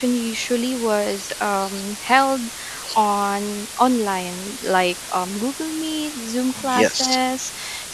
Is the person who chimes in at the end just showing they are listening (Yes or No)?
Yes